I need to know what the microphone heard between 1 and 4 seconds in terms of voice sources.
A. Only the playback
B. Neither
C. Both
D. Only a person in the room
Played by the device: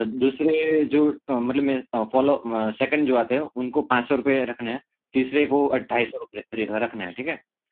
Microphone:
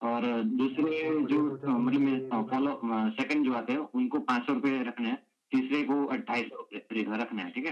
C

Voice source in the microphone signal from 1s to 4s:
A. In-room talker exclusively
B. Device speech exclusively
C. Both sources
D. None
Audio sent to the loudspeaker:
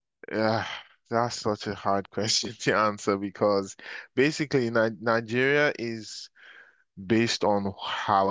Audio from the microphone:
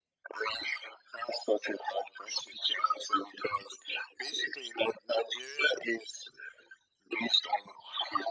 B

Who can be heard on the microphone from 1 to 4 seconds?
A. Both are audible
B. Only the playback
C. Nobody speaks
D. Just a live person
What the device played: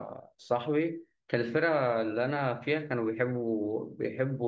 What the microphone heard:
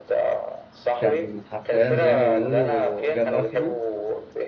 A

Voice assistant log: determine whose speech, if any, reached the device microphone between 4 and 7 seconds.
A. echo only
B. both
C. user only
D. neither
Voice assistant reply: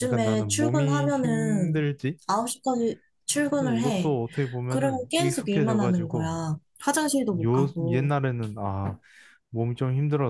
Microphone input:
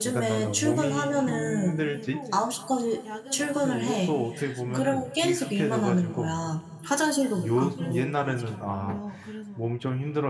B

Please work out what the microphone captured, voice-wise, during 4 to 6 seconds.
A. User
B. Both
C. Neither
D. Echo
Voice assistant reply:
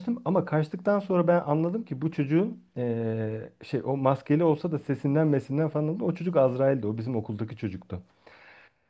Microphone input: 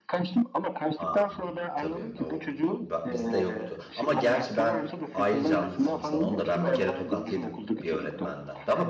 B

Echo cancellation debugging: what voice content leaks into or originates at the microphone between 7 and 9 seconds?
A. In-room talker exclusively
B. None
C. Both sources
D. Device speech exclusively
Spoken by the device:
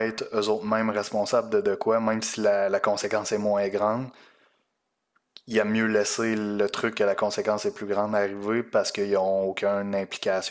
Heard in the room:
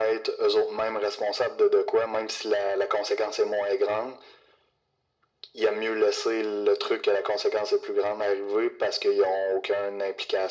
D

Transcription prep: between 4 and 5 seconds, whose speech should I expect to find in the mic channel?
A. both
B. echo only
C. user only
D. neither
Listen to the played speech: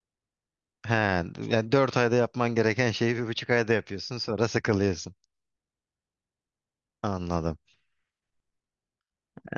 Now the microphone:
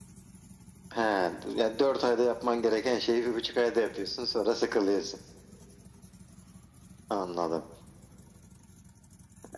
B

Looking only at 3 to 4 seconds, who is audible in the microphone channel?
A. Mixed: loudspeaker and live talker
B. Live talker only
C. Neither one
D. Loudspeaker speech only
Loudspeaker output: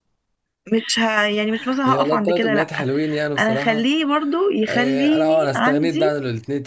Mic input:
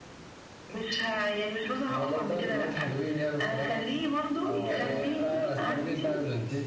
D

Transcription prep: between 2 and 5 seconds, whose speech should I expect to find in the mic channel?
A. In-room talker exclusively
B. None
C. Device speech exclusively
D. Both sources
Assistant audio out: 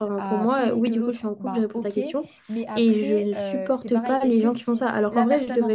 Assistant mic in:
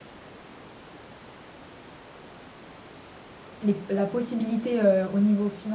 A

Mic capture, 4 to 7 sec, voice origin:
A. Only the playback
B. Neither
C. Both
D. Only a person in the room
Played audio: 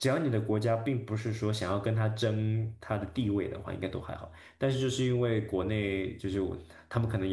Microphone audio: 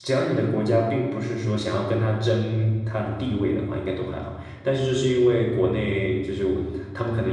A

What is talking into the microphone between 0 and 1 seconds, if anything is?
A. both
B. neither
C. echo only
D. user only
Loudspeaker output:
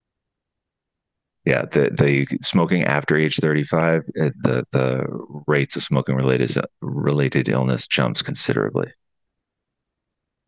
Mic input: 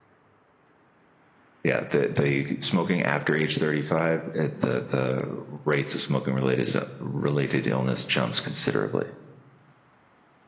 B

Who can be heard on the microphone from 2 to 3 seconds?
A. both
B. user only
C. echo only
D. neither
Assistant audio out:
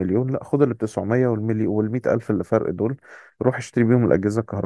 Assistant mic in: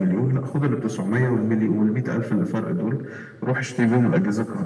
C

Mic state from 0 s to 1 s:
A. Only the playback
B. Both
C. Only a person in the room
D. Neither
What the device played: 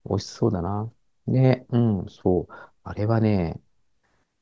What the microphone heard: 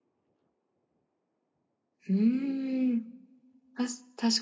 D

